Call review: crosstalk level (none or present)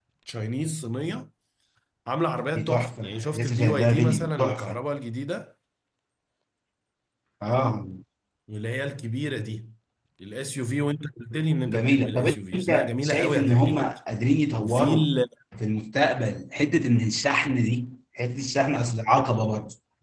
present